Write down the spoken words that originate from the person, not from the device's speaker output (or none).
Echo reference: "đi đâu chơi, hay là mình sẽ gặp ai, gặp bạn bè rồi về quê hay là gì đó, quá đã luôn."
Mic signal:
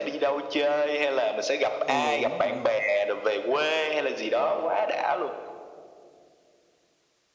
ờ, đúng, đúng rồi.